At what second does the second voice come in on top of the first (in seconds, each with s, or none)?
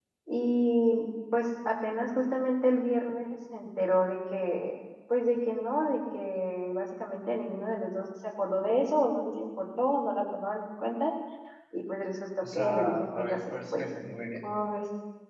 12.6 s